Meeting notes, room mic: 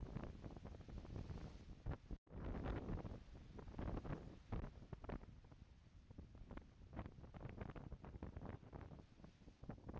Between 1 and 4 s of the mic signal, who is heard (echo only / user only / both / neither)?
neither